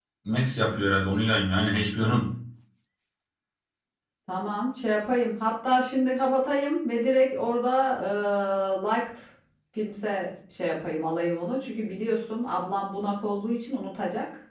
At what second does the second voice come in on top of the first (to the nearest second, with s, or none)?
none